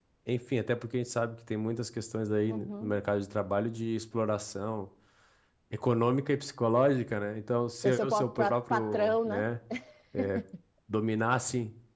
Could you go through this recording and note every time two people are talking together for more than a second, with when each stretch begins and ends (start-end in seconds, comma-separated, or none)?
7.7-9.5